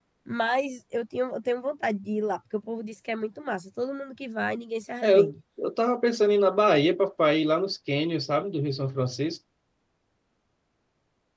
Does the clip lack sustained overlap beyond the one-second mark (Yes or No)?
Yes